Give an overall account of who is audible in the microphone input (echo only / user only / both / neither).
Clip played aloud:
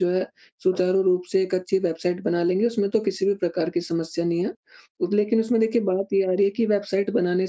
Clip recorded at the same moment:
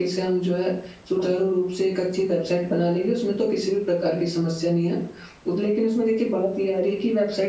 echo only